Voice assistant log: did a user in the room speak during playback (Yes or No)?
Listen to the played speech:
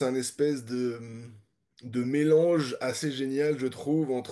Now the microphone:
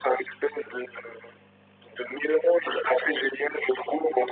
No